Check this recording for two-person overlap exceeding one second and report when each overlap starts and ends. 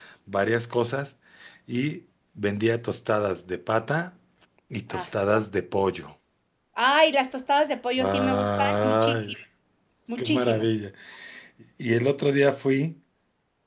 8.0-9.3

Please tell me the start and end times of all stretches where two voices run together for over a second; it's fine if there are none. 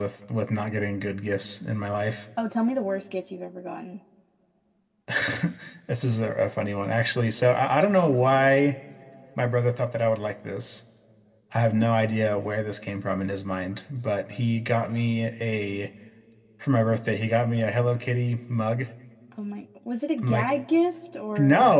none

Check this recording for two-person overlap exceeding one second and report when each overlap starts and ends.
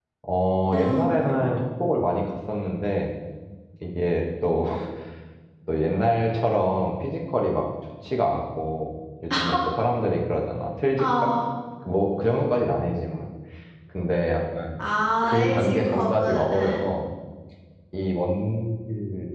15.2-16.9

